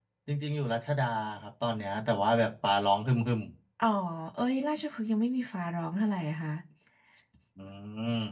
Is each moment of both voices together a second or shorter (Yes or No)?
Yes